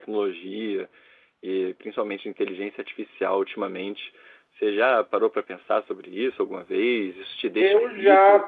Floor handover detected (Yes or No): Yes